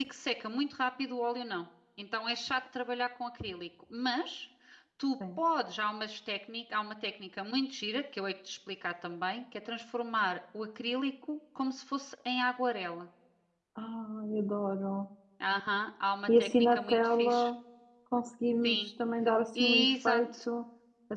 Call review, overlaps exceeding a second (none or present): present